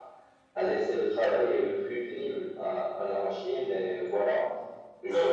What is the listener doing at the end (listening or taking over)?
taking over